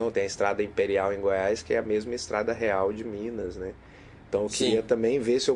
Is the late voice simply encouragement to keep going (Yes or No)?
Yes